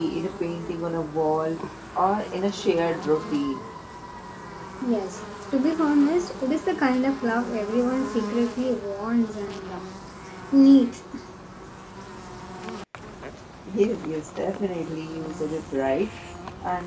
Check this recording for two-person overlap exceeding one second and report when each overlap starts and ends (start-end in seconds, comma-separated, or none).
none